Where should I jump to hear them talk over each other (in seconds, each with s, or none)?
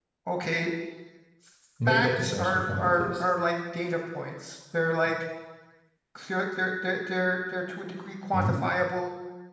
1.9 s